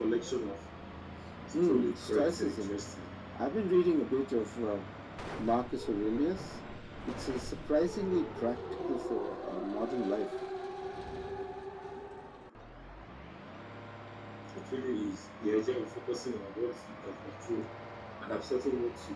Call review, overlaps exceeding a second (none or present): present